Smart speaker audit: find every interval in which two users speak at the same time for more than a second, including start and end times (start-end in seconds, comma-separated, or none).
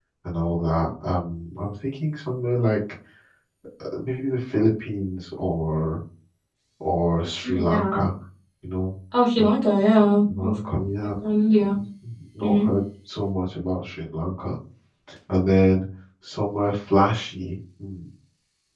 none